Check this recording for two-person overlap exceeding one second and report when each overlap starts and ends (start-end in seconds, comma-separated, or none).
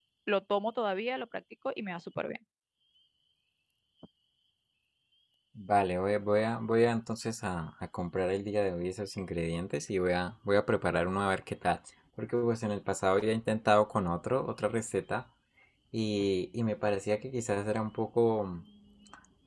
none